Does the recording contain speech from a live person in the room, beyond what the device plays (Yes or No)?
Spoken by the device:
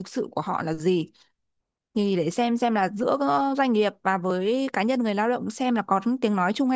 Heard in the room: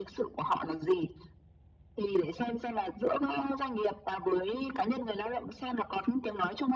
No